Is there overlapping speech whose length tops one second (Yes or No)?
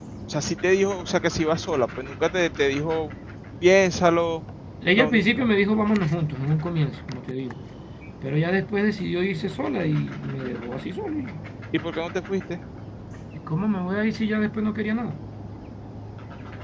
No